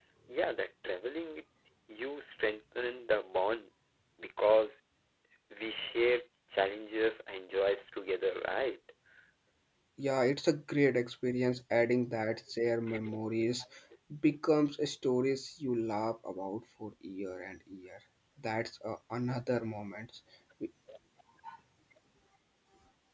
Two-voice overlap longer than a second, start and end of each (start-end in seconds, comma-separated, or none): none